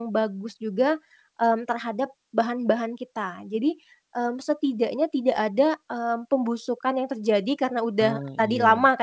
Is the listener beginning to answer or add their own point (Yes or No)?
No